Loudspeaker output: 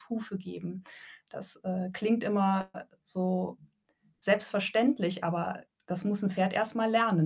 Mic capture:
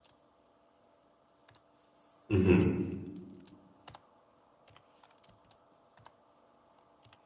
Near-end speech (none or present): present